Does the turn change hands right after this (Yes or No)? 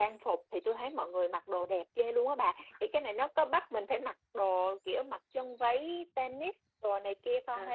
Yes